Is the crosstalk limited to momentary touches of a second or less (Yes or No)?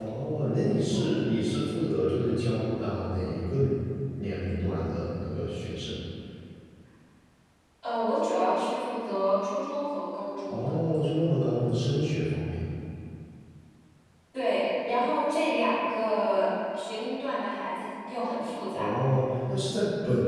Yes